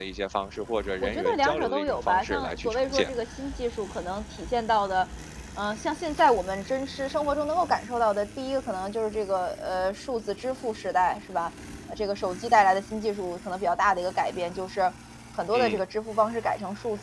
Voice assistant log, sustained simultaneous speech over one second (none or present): present